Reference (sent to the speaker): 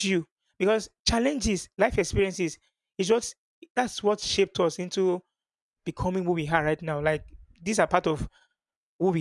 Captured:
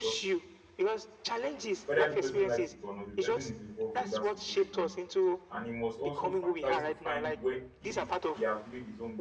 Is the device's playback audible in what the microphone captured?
Yes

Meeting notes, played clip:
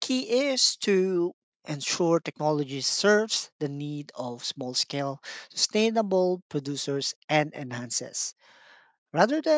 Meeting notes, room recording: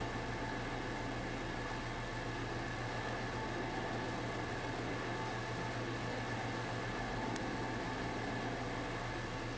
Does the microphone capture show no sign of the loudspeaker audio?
Yes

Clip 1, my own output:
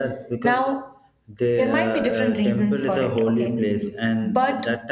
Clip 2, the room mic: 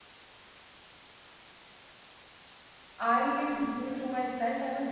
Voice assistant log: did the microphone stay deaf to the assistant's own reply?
Yes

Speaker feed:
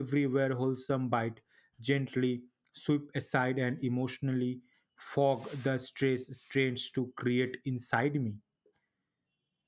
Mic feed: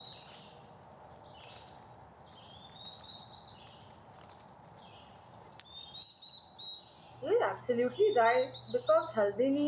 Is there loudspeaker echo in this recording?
No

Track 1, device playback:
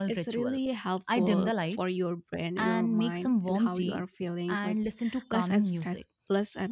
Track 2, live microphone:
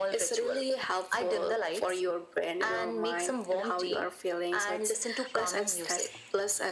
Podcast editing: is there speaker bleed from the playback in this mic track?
Yes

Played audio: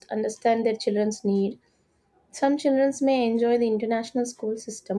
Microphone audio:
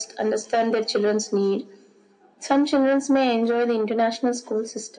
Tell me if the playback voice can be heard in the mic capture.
Yes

